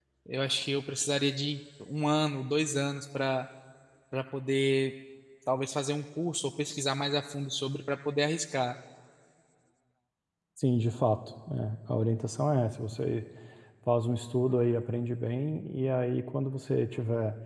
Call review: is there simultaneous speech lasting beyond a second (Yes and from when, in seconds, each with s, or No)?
No